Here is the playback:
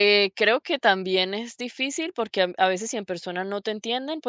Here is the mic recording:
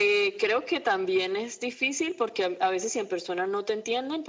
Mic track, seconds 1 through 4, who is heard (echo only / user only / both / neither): echo only